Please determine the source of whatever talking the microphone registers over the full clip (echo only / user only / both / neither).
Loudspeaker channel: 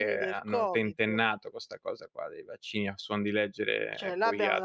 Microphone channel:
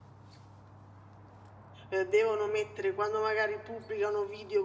user only